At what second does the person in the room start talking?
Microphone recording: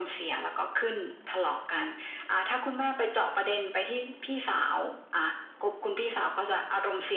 none

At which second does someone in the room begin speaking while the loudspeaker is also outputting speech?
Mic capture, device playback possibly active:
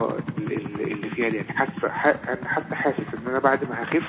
none

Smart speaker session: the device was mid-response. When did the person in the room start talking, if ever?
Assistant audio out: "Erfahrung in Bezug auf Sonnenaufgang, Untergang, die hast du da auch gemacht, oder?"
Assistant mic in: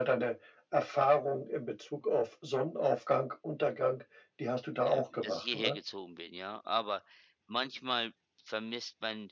4.8 s

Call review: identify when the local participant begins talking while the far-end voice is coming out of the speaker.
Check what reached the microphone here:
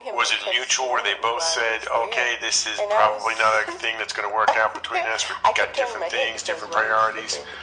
none

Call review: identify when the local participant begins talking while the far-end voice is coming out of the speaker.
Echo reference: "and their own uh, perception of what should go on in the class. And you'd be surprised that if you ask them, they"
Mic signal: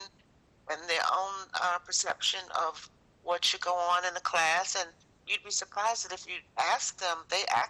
none

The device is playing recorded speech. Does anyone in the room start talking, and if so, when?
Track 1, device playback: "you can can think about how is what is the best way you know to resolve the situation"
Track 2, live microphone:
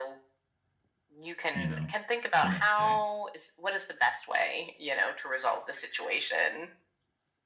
1.5 s

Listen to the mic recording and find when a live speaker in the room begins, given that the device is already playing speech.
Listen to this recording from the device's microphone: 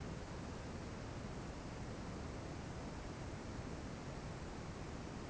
none

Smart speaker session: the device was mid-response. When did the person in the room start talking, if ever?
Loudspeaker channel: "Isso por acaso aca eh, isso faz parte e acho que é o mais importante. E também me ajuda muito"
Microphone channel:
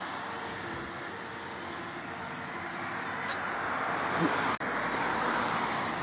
none

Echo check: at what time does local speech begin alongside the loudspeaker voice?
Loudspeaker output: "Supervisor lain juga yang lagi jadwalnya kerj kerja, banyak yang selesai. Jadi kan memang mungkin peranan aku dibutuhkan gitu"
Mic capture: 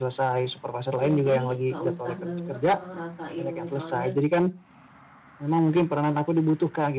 1.0 s

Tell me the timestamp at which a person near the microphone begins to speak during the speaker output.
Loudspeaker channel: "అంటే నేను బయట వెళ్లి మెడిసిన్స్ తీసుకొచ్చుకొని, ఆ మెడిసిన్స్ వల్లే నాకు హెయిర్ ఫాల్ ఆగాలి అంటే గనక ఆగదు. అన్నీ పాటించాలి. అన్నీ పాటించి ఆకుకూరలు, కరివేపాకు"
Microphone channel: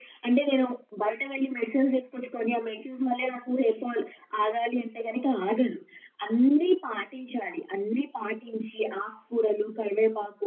none

